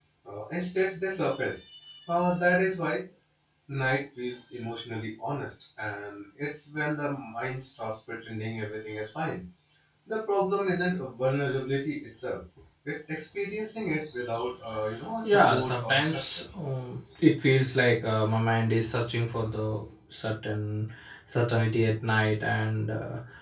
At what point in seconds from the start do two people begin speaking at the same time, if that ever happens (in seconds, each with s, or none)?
15.2 s